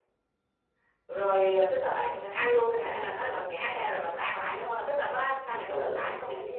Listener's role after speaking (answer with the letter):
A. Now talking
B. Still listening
A